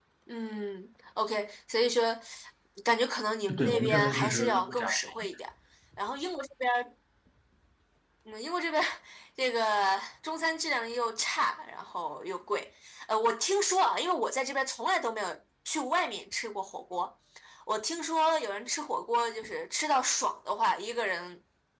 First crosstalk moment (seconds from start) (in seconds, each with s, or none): 3.6 s